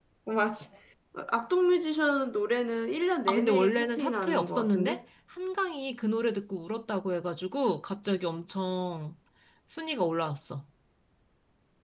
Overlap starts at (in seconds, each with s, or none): 3.3 s